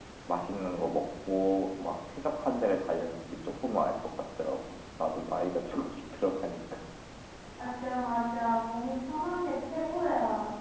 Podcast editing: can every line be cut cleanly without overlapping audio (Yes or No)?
Yes